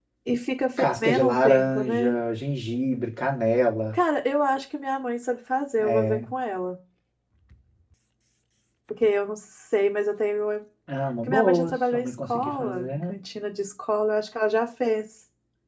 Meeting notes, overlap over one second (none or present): present